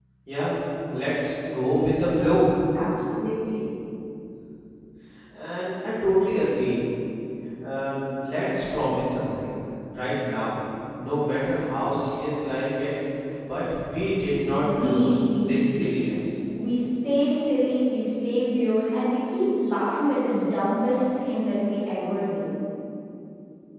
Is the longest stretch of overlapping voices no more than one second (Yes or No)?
No